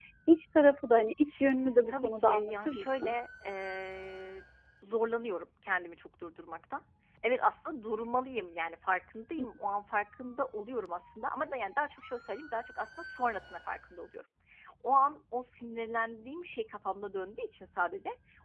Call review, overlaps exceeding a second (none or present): present